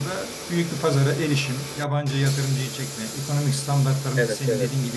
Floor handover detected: No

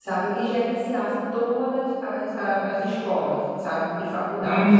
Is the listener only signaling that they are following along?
Yes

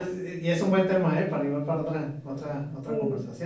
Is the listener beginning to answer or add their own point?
Yes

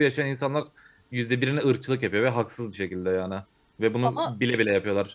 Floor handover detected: No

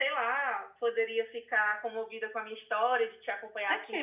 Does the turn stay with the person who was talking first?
No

